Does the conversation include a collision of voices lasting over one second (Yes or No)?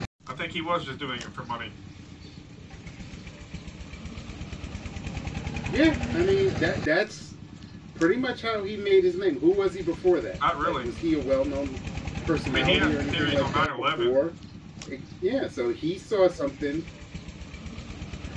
Yes